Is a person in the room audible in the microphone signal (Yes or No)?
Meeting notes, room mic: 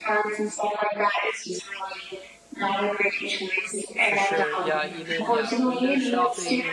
Yes